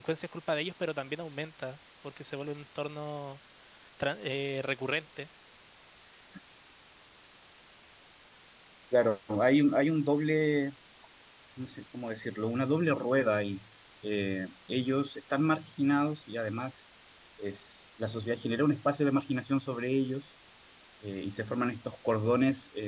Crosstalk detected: No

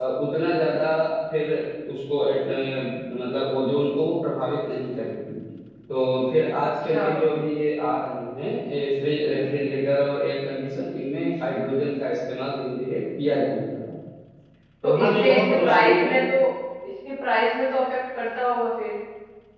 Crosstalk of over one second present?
Yes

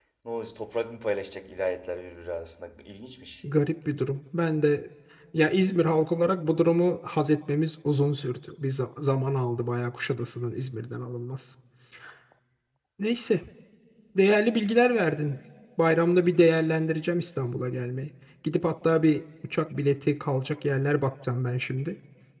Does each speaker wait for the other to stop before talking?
Yes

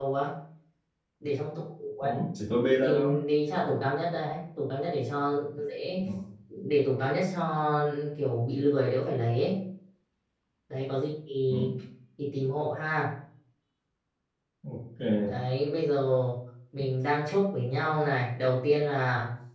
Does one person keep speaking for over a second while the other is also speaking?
No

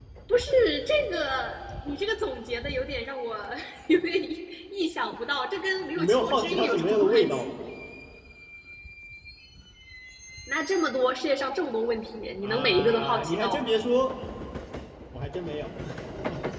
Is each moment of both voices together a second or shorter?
No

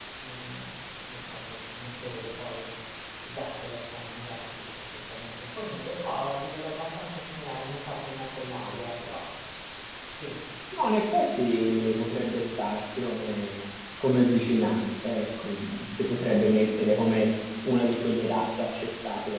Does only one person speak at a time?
Yes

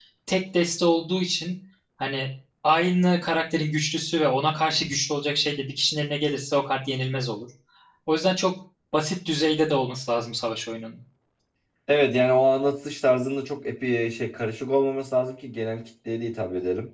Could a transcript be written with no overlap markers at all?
Yes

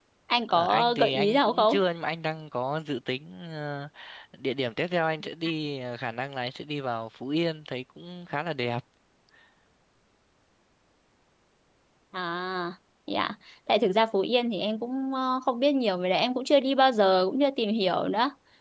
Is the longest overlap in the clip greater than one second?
Yes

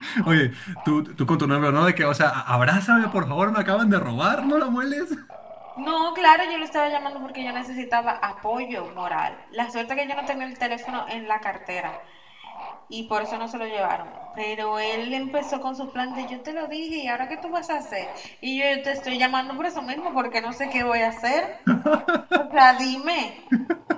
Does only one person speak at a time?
Yes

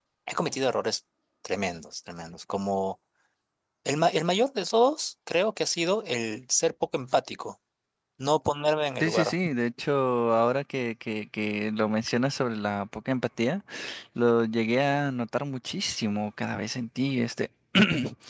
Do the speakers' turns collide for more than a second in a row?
No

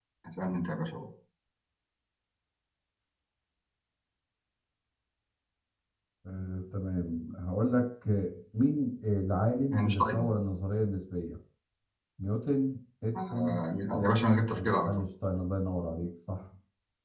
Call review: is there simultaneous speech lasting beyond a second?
Yes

